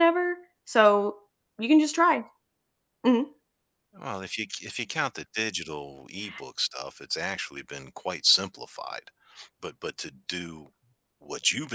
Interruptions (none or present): none